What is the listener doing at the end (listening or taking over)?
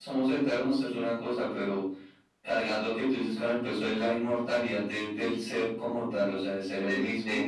taking over